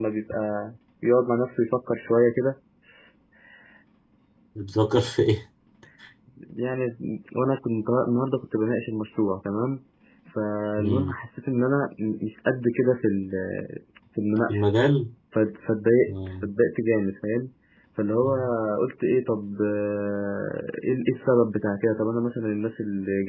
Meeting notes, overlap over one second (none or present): none